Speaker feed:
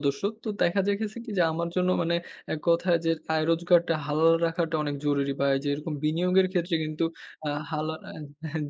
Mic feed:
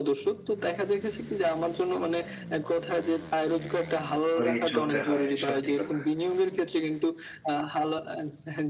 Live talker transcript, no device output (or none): করেই চলতে হয়, সত্যি কথা।